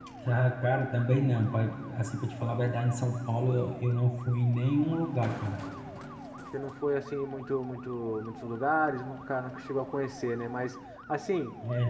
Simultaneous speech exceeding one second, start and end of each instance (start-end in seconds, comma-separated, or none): none